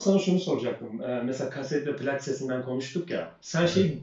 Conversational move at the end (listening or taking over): listening